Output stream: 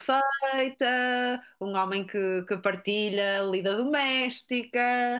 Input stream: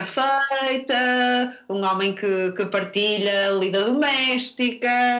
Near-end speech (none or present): none